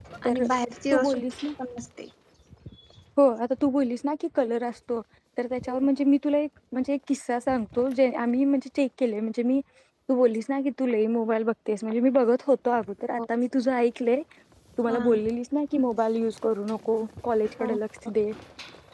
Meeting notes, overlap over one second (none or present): none